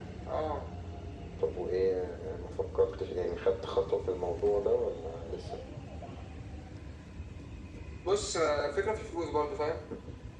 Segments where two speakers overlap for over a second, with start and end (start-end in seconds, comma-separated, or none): none